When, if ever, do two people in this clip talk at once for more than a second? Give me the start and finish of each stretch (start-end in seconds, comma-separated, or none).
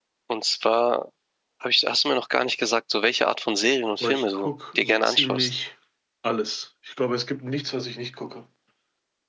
4.0-5.5